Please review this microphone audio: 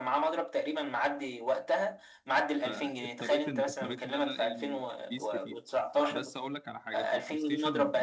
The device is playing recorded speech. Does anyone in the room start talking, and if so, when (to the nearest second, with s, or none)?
3 s